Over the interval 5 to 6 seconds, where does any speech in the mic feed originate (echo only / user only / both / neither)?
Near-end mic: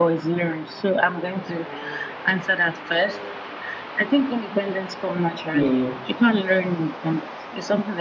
both